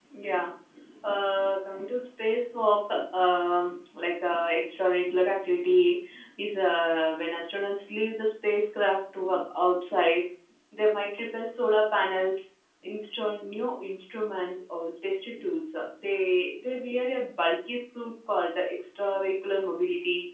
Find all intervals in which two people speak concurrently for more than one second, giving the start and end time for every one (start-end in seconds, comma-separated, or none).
none